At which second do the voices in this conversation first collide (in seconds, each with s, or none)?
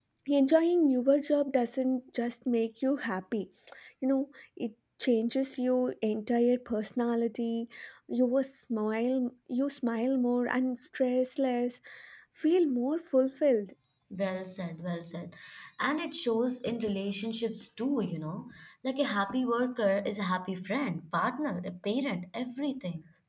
none